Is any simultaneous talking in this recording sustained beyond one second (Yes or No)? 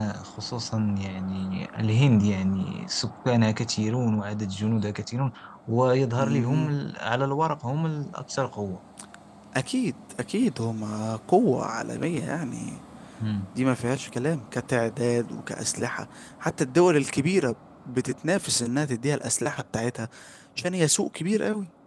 No